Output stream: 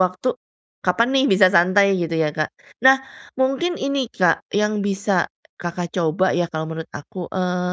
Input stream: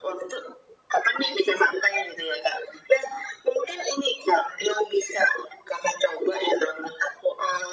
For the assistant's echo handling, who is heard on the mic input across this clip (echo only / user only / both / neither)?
echo only